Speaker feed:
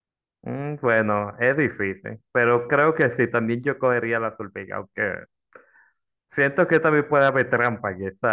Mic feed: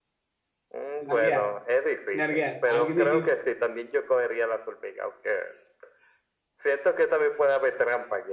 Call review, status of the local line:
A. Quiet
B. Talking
B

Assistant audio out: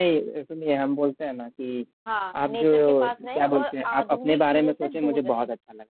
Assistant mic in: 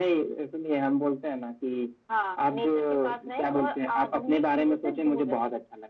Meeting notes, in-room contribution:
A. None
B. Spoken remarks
A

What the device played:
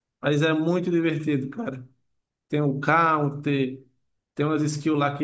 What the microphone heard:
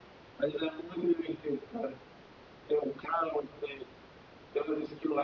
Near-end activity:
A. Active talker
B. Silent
B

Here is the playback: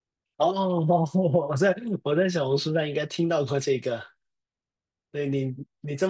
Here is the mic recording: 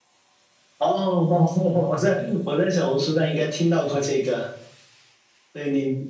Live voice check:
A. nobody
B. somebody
A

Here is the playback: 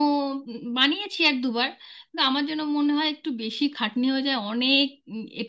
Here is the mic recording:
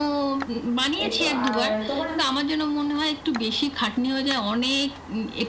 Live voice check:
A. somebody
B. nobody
A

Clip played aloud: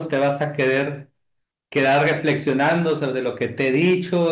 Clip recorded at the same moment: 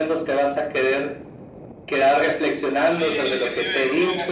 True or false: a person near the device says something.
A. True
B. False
A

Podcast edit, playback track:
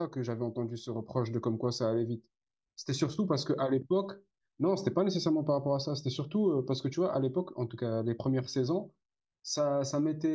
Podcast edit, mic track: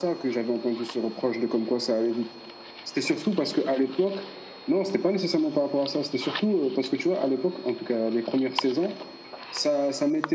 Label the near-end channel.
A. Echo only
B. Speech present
A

